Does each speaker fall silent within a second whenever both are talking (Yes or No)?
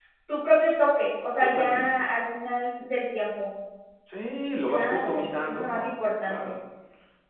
No